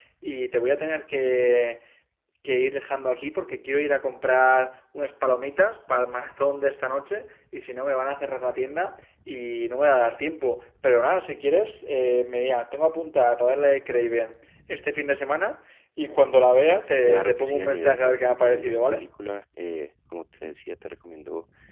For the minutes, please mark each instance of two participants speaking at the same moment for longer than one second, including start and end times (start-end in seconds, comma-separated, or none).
17.0-19.0